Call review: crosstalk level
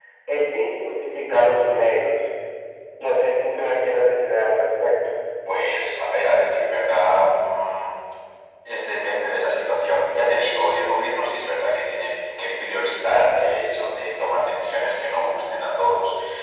none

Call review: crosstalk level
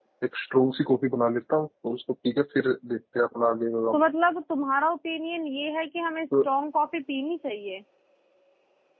none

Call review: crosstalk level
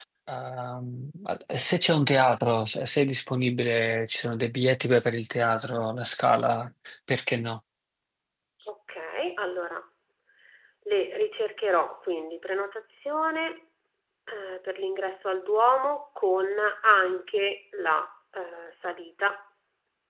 none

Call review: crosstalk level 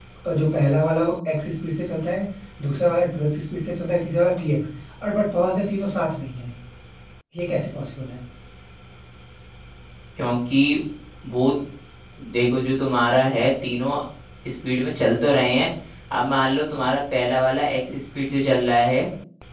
none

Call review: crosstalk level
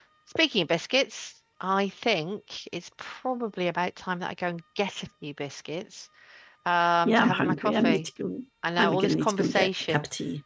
present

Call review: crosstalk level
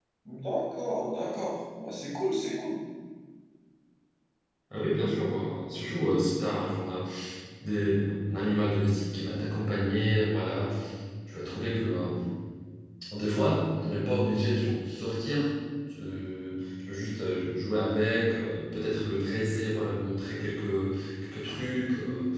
none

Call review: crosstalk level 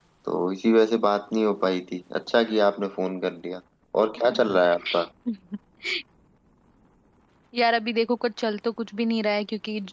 none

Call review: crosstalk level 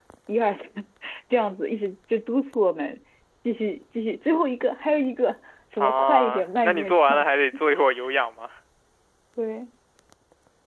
present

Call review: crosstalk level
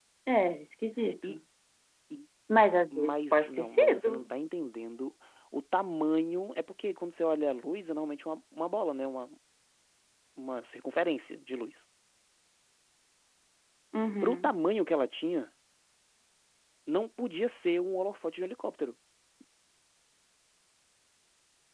present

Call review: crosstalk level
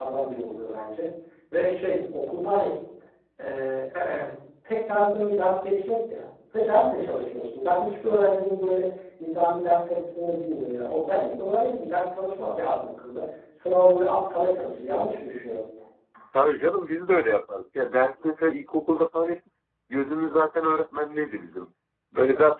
none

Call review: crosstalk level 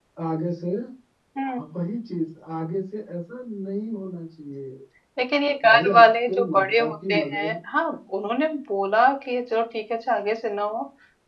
present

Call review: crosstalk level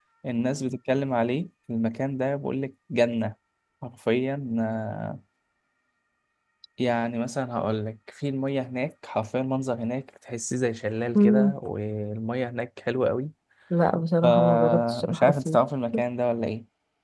present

